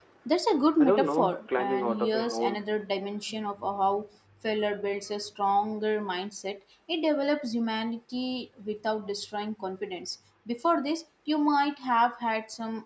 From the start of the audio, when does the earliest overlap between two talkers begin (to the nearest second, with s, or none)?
1 s